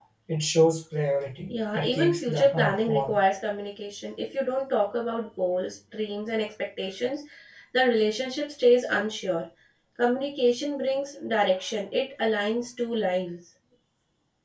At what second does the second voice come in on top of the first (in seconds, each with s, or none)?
1.5 s